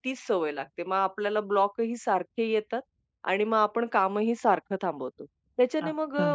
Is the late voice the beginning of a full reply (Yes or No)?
No